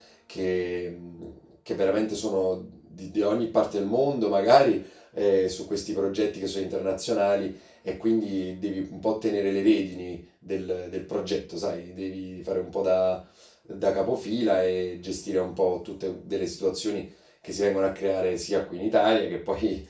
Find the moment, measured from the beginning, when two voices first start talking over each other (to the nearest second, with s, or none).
none